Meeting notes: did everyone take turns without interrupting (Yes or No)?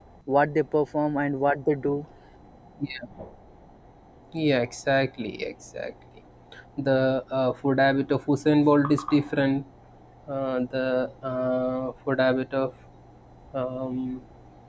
Yes